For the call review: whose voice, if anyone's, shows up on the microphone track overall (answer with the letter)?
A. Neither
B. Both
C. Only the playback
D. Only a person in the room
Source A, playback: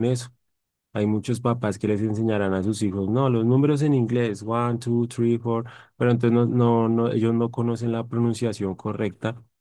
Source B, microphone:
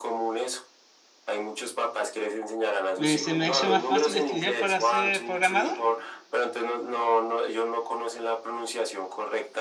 B